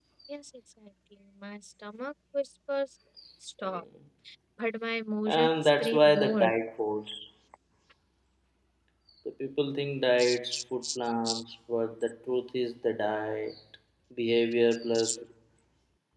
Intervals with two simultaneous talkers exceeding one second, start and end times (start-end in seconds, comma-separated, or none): 5.3-6.5